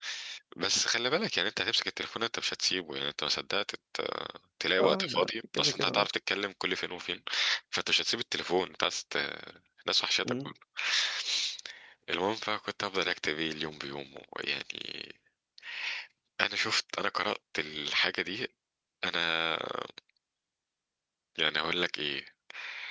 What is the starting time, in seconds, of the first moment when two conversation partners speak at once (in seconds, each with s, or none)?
4.8 s